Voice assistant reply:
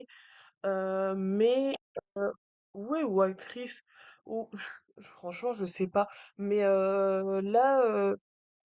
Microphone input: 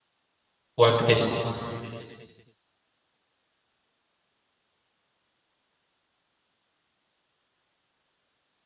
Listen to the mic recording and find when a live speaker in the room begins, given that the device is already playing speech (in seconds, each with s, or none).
0.8 s